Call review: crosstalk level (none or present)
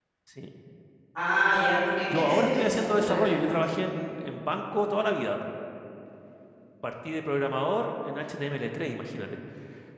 present